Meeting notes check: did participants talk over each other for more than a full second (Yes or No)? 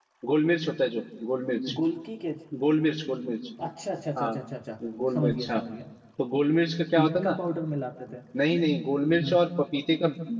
No